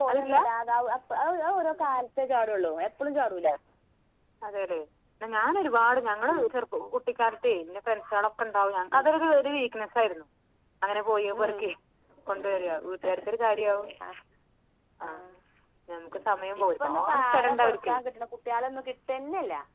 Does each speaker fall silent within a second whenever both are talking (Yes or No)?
No